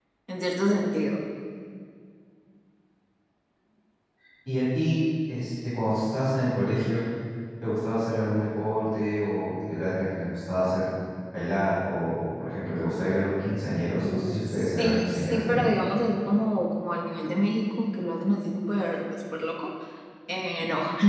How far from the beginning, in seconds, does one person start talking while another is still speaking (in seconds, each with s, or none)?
14.0 s